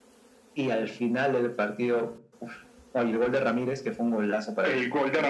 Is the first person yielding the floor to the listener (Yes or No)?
Yes